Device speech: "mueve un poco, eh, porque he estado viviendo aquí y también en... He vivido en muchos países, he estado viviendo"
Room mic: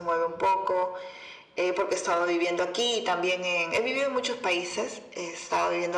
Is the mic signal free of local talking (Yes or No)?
Yes